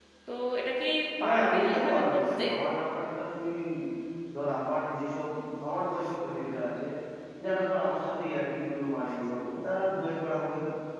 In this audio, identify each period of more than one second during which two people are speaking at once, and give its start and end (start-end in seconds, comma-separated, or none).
1.2-2.4